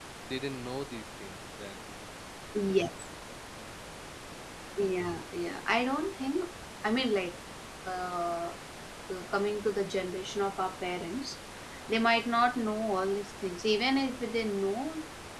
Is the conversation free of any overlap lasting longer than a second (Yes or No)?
Yes